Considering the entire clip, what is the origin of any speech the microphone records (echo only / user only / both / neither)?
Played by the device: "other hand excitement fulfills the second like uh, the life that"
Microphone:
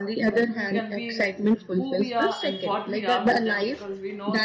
both